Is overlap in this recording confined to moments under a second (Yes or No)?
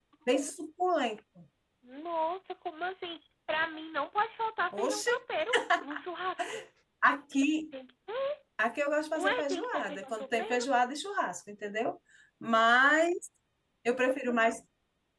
No